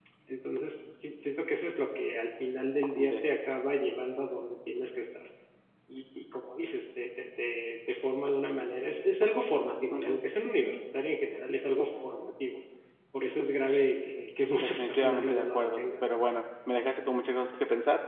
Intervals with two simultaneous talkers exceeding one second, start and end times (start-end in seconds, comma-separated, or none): 14.6-16.2